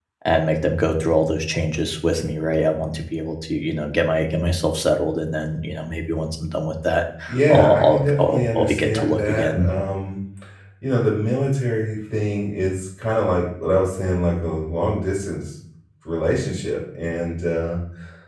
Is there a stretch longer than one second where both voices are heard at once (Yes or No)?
Yes